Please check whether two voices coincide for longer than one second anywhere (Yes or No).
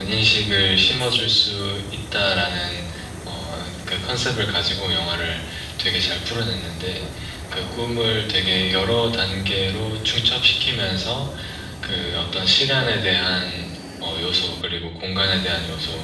No